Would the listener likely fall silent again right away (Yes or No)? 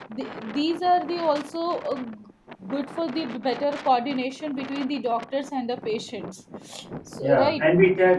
No